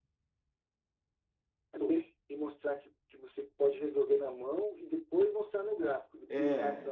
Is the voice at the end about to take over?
No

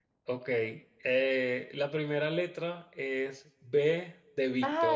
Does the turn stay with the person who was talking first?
No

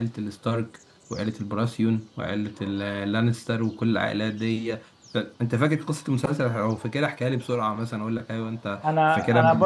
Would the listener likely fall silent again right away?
No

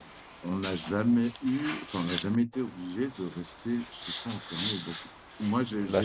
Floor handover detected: No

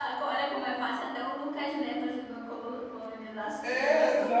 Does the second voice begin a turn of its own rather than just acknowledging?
Yes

